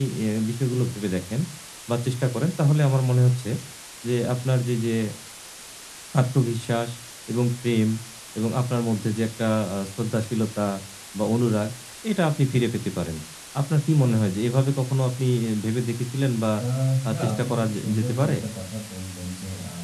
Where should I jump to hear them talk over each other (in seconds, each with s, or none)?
17.1 s